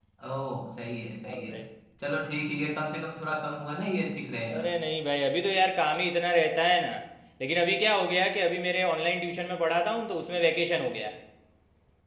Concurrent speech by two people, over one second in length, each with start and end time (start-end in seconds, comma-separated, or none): none